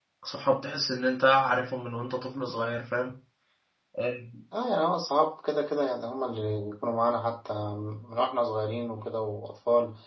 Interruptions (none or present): none